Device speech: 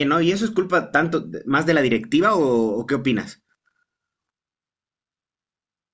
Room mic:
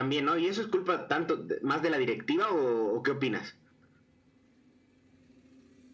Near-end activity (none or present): none